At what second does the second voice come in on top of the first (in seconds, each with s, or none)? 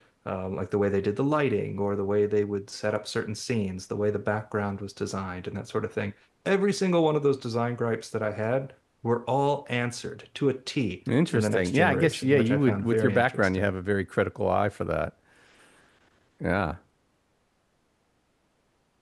11.3 s